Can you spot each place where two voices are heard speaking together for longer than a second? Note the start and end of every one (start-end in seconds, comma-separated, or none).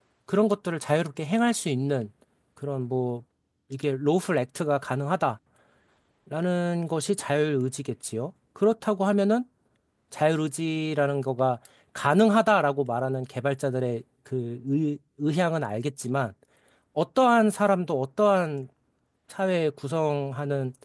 none